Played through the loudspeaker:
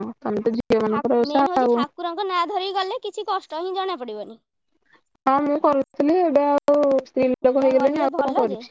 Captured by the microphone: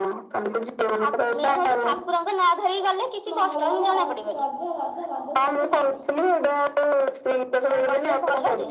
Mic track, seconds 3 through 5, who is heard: both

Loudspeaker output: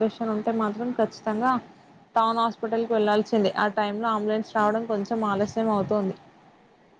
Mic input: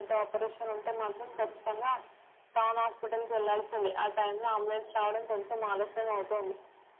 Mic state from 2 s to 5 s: echo only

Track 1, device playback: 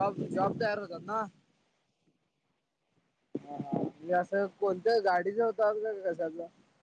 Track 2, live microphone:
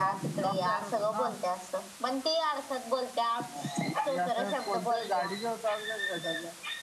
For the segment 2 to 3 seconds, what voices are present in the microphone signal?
user only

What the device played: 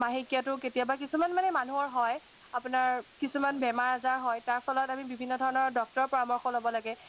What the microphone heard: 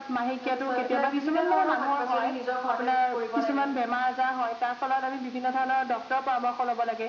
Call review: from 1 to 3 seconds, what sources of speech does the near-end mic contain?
both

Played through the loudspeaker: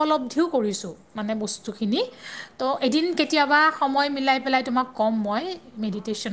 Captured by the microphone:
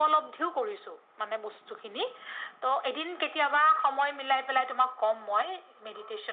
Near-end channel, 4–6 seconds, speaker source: echo only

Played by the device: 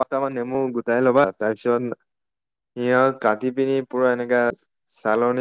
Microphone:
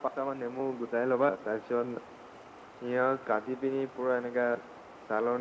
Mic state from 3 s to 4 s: echo only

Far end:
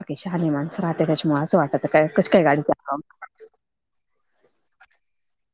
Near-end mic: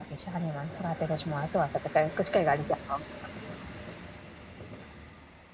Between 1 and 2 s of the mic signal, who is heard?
echo only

